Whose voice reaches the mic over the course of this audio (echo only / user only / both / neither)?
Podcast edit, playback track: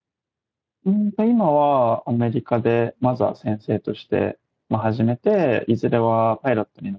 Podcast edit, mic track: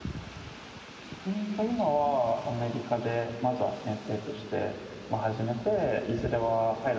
echo only